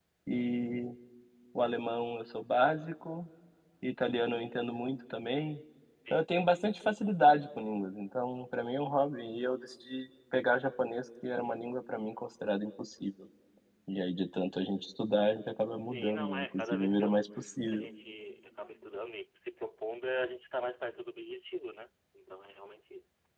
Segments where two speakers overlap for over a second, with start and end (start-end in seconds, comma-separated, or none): 15.9-17.3